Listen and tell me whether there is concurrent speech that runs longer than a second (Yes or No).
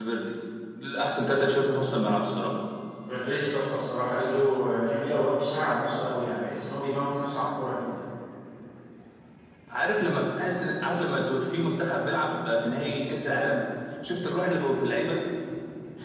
No